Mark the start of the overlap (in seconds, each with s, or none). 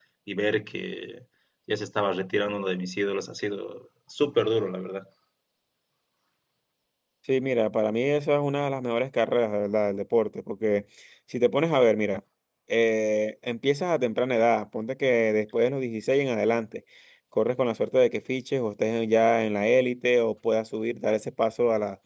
none